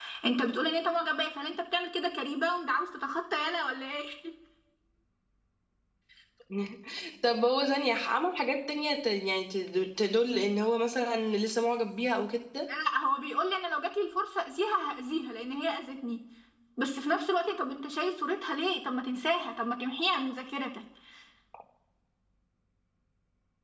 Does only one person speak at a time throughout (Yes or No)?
Yes